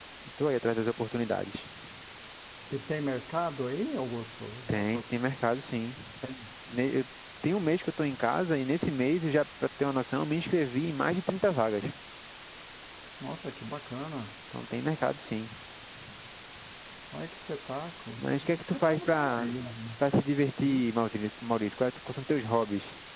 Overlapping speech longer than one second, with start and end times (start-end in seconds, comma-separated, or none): 18.2-19.5